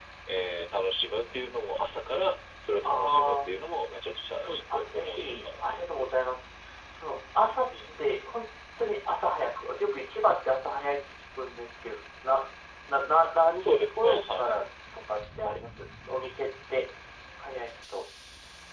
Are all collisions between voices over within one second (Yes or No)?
No